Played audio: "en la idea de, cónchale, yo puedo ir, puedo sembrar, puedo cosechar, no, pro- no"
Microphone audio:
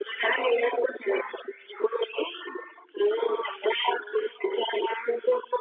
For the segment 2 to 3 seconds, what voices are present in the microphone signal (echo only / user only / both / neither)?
echo only